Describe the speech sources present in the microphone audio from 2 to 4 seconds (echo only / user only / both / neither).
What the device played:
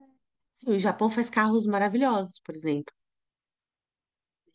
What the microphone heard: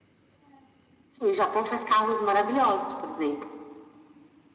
echo only